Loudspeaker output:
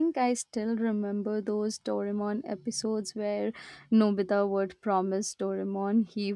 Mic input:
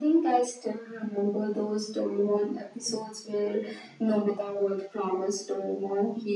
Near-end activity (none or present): none